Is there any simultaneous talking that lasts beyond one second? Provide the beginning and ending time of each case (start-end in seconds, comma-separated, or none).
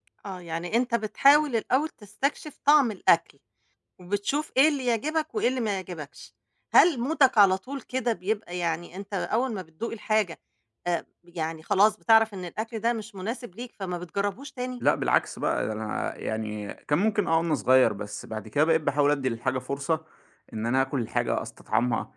none